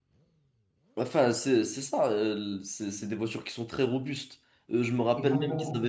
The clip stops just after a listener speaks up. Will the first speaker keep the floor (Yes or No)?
Yes